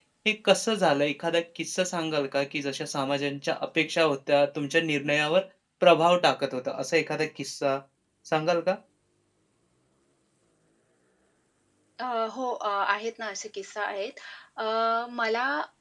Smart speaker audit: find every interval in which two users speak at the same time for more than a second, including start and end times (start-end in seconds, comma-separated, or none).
none